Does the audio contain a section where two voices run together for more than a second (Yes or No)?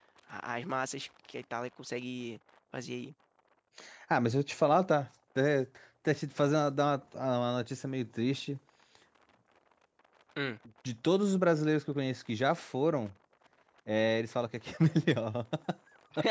No